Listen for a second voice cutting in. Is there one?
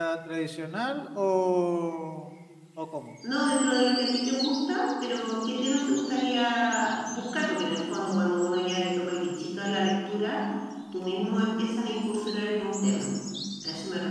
No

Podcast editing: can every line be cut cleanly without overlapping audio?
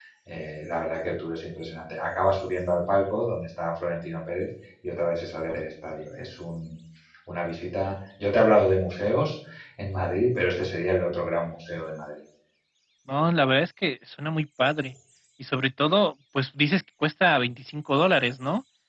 Yes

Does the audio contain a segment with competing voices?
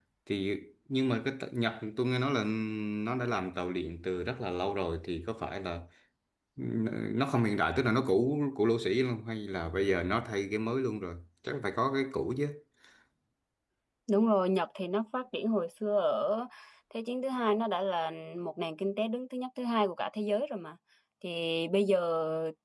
No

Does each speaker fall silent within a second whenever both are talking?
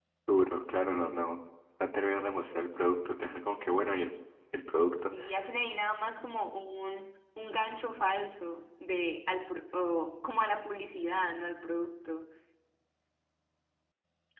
Yes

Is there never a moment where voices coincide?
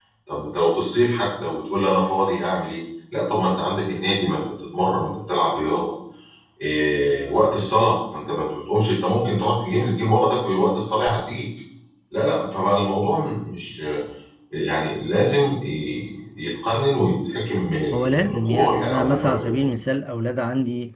No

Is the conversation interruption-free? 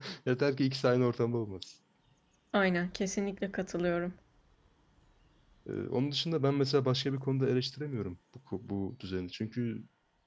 Yes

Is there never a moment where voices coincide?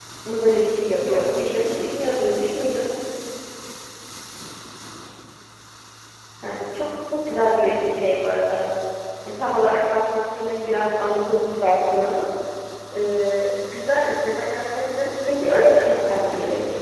No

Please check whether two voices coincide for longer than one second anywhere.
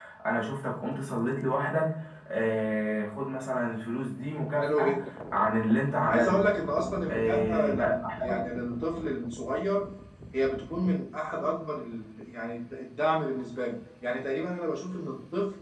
Yes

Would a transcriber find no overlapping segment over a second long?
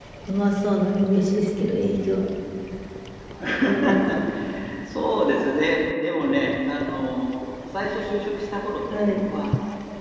Yes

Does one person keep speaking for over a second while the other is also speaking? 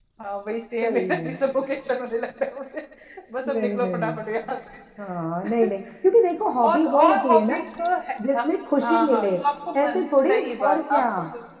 Yes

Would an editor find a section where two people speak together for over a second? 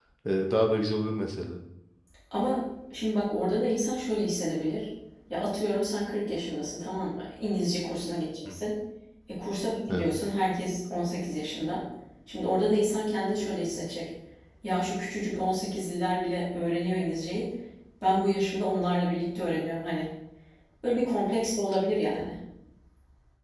No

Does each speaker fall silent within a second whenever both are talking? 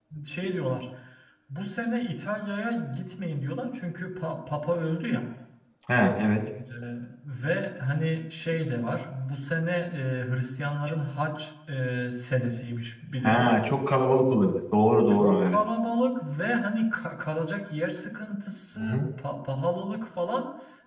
Yes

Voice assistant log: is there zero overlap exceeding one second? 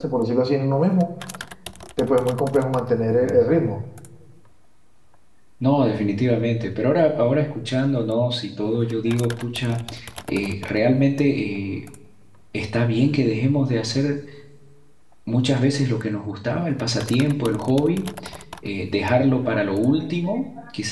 Yes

